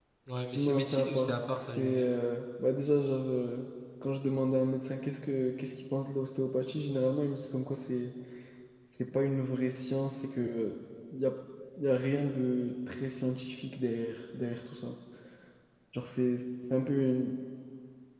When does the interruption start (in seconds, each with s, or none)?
0.5 s